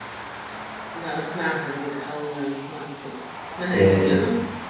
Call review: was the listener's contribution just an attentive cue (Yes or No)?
No